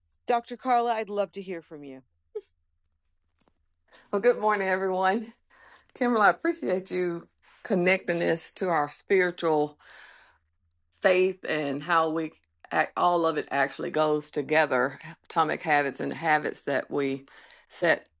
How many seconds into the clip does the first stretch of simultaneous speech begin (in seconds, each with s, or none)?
none